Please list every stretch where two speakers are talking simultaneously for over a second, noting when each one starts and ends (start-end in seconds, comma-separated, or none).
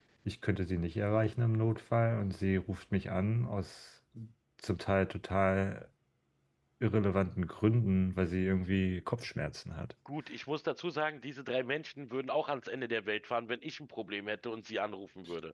none